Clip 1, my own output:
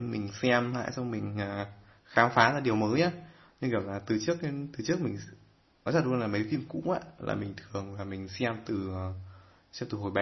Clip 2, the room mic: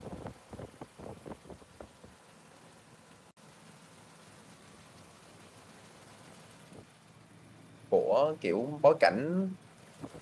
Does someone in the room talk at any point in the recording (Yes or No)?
Yes